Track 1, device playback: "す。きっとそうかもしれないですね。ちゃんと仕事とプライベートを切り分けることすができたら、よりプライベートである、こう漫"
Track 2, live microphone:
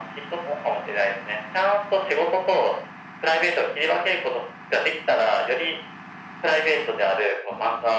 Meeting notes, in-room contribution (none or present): none